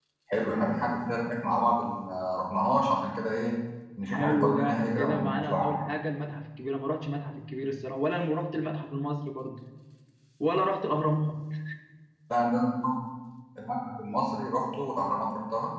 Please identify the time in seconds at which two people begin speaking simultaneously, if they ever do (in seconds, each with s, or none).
4.0 s